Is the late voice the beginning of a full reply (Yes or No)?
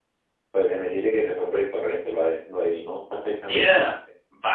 Yes